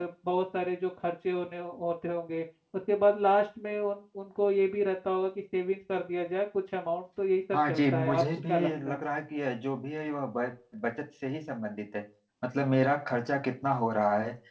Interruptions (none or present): present